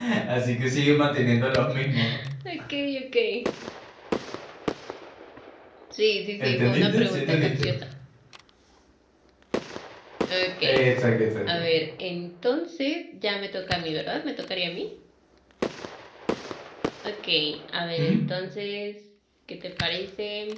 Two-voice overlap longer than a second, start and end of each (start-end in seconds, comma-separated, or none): 6.4-7.8